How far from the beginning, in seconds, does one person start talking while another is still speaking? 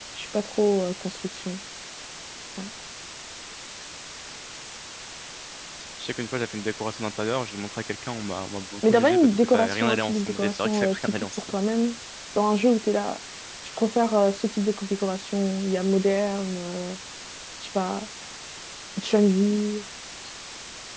8.8 s

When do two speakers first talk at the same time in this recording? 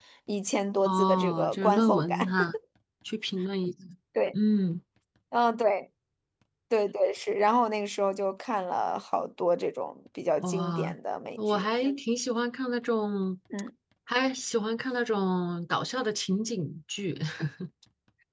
0.8 s

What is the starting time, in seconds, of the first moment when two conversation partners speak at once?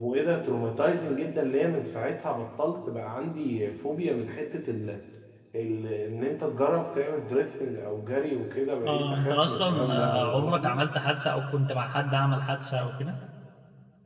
8.8 s

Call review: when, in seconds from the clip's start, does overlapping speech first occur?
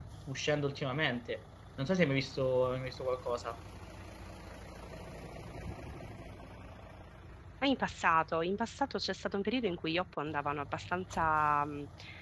none

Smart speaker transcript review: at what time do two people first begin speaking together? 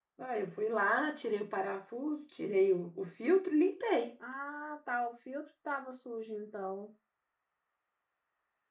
none

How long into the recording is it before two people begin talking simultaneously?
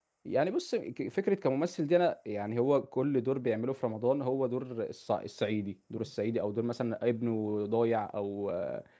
none

